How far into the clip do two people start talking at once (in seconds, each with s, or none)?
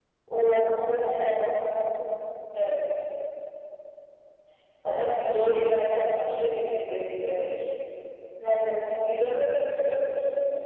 none